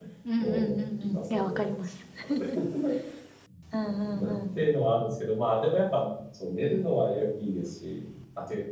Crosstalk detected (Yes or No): Yes